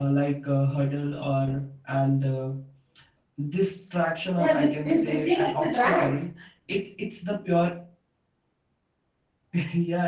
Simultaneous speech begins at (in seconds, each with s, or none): 4.4 s